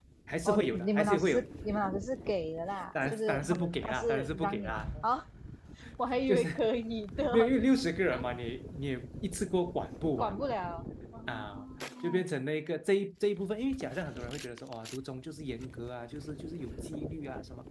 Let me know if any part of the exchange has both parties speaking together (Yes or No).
Yes